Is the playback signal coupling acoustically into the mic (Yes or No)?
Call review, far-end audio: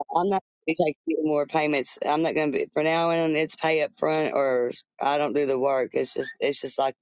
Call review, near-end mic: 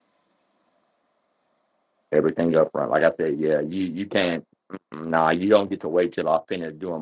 No